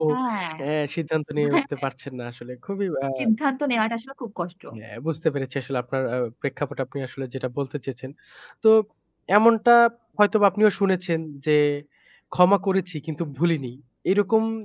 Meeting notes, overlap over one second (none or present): none